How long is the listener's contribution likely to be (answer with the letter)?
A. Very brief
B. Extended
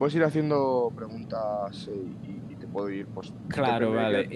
B